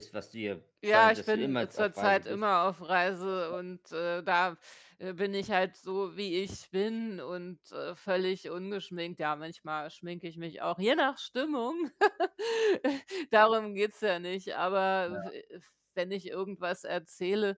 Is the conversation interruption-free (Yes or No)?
No